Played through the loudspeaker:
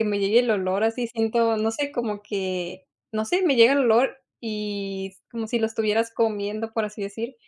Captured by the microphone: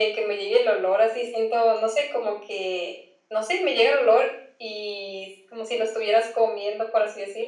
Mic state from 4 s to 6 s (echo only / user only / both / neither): echo only